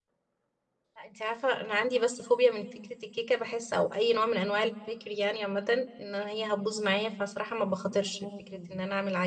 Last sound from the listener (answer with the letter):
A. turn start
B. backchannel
B